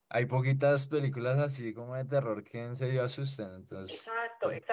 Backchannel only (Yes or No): No